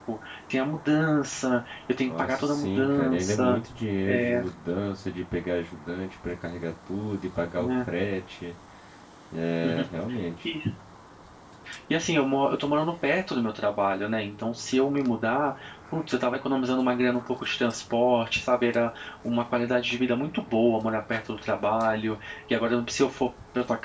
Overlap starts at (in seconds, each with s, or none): 2.0 s